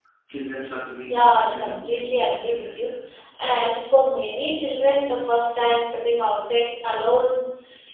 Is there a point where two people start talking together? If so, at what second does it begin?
1.1 s

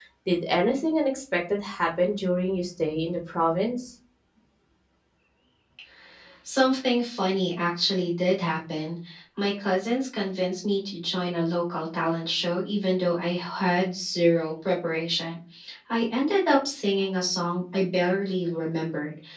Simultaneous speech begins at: none

